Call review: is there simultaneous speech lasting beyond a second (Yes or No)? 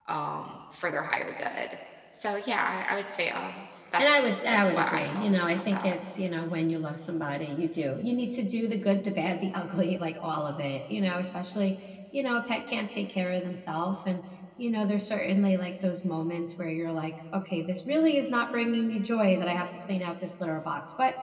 Yes